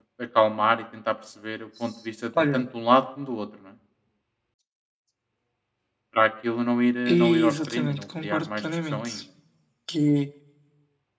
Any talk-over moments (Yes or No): Yes